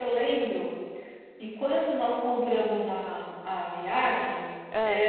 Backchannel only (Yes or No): Yes